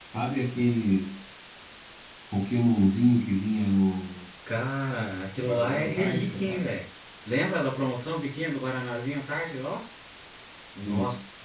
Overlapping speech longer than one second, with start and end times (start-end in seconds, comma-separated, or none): 5.5-6.7